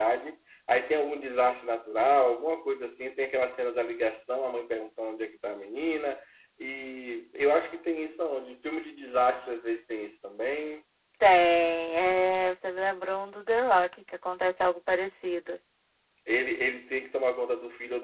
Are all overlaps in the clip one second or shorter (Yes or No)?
Yes